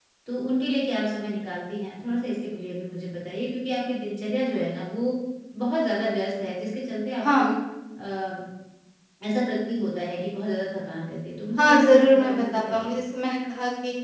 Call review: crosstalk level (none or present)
present